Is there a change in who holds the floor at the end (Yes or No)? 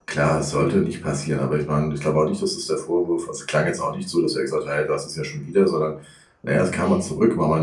No